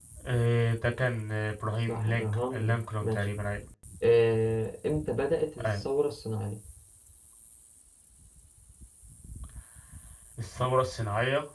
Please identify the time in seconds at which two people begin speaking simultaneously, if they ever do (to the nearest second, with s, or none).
2 s